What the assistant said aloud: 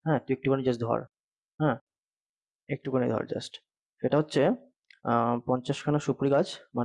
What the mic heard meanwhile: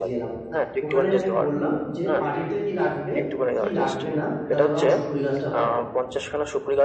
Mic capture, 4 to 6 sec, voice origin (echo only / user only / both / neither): both